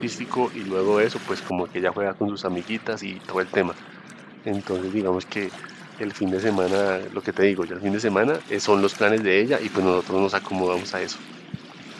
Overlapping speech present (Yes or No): No